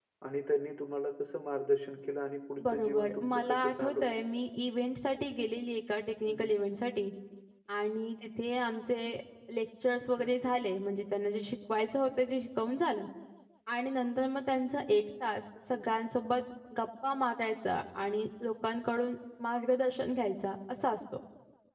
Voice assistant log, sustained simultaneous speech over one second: present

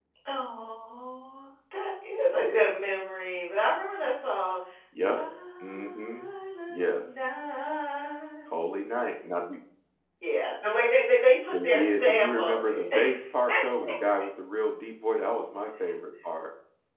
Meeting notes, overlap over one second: present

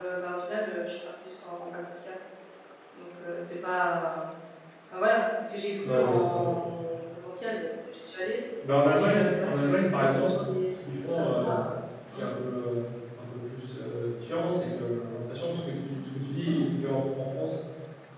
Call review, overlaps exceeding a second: present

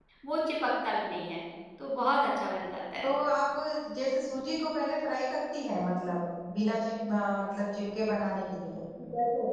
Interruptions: none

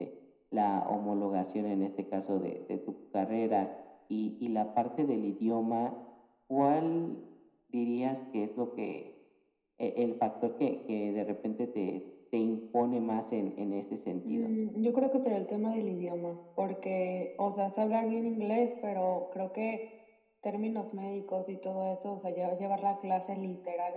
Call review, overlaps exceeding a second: none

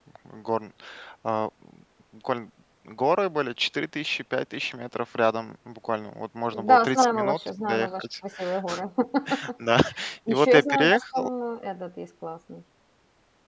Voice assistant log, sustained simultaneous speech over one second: present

